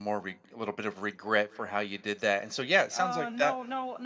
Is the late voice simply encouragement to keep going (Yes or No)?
No